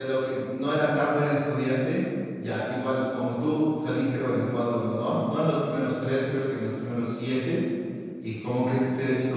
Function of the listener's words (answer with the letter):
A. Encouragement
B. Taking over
A